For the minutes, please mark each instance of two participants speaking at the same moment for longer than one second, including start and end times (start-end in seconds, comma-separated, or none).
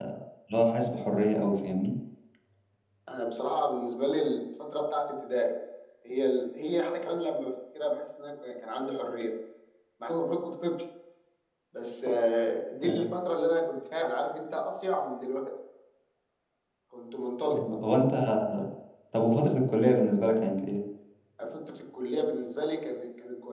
none